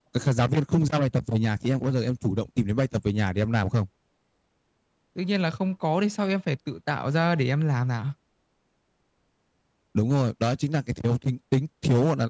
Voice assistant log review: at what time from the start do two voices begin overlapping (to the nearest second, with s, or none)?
none